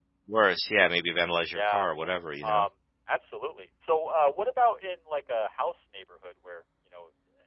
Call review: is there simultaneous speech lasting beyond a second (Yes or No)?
No